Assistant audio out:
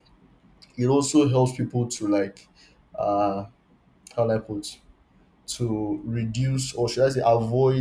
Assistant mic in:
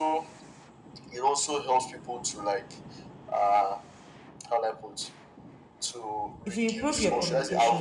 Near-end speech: present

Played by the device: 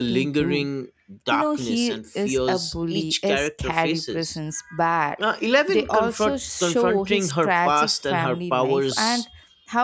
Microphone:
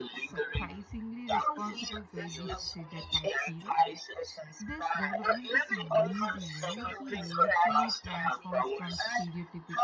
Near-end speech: present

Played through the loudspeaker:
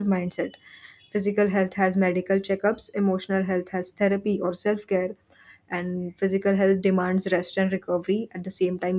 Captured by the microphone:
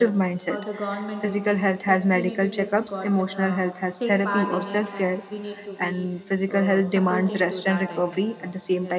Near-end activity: present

